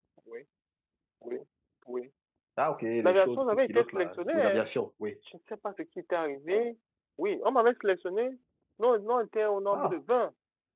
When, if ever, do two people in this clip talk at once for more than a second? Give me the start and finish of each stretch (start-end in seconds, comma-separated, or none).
3.0-4.6